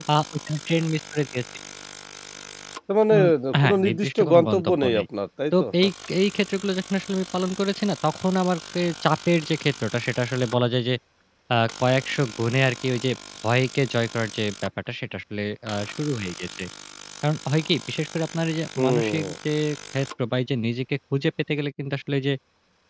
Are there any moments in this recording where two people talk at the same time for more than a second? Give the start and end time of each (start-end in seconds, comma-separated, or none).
3.6-5.0